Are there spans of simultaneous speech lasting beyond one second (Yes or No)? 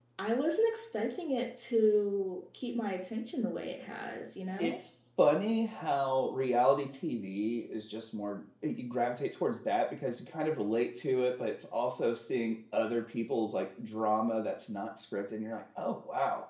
No